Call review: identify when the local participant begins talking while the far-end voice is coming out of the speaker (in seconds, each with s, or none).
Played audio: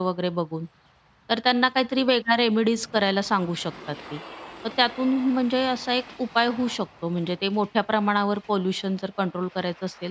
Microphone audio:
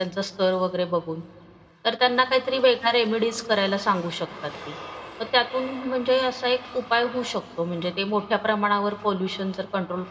none